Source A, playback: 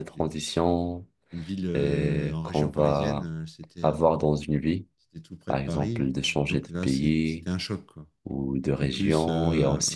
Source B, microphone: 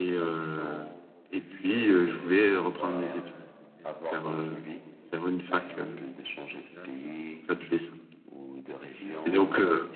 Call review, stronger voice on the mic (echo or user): user